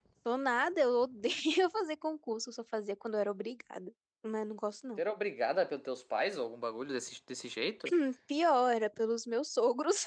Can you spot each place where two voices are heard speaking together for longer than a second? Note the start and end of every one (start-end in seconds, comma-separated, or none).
none